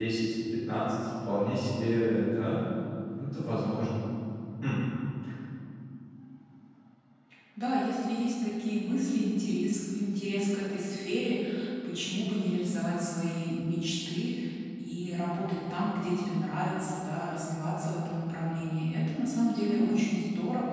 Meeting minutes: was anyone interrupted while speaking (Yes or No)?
No